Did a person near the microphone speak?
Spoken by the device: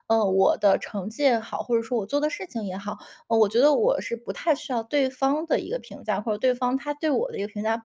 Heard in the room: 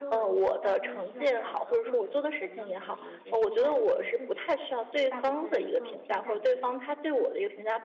Yes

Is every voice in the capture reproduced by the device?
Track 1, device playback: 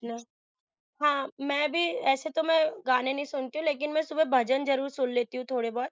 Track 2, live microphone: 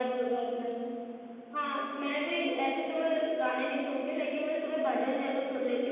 Yes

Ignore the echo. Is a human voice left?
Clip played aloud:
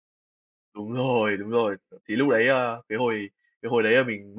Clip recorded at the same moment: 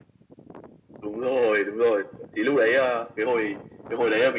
No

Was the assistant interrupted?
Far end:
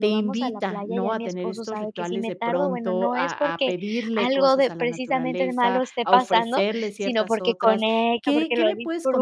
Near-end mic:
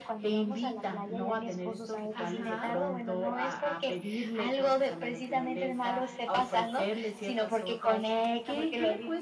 Yes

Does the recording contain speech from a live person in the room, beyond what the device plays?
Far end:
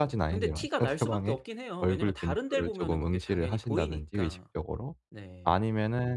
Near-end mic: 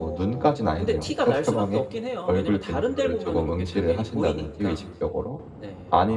No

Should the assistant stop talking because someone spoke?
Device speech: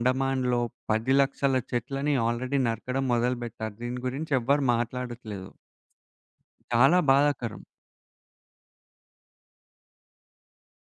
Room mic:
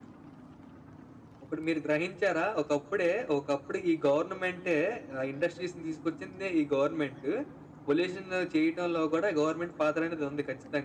Yes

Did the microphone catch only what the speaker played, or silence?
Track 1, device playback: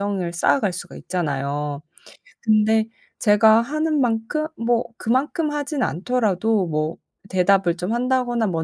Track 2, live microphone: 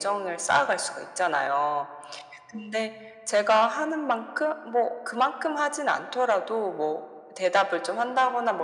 Yes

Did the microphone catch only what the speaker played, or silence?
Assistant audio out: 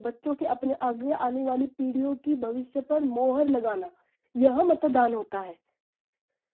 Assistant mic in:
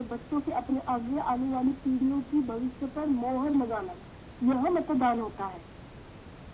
Yes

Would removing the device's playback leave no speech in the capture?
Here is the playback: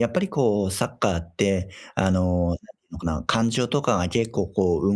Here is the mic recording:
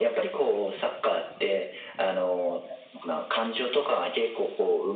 Yes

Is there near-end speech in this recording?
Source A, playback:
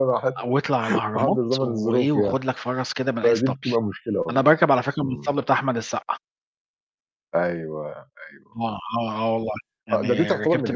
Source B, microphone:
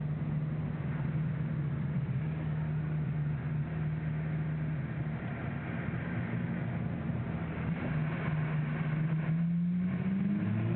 No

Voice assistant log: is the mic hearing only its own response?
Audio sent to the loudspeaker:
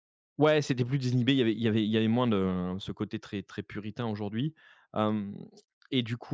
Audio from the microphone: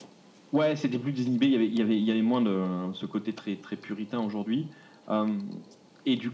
Yes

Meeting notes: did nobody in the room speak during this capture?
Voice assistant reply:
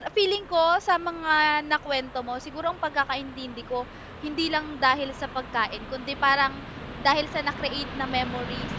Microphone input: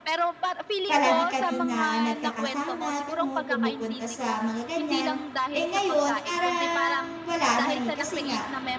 No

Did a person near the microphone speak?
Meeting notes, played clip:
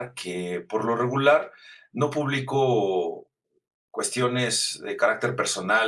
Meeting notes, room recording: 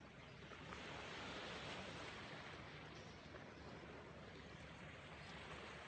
No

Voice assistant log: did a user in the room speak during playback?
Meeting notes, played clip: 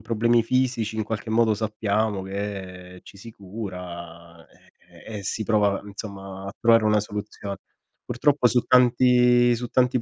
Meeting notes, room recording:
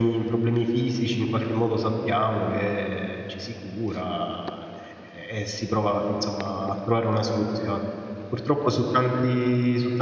No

